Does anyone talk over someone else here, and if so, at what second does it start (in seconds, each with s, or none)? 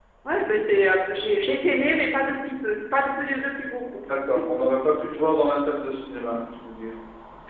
none